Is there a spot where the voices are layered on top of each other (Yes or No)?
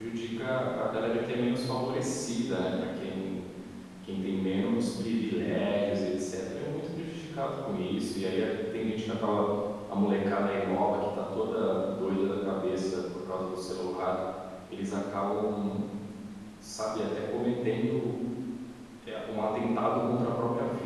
No